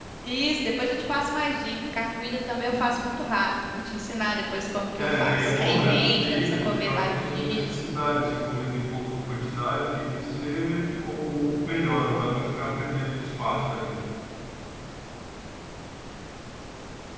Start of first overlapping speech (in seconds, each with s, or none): 5.0 s